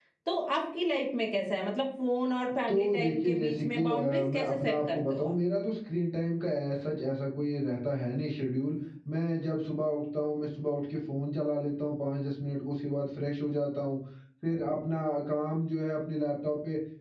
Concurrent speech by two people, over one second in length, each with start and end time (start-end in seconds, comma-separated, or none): 2.7-5.3